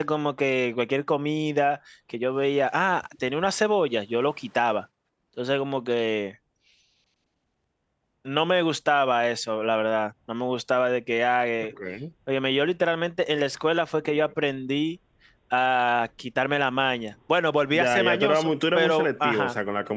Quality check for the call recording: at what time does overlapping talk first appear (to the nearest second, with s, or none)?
18 s